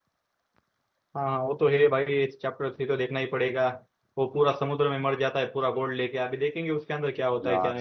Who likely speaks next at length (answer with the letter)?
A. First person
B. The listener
B